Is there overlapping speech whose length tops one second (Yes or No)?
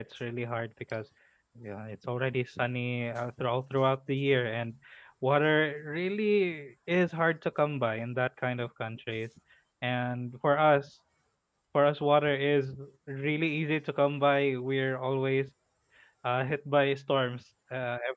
No